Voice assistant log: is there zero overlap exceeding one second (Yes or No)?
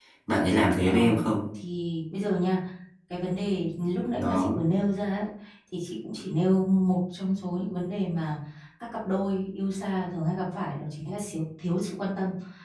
Yes